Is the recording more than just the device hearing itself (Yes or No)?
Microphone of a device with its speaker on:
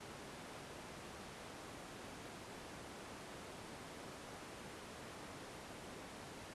No